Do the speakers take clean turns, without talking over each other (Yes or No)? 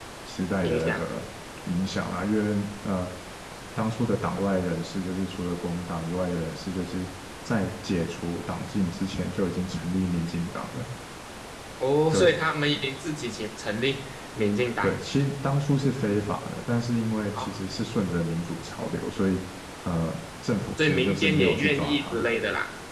No